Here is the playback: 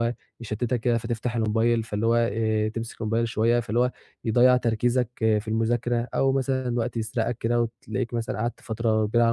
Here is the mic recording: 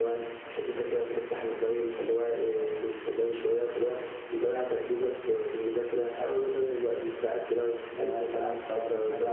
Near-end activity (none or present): present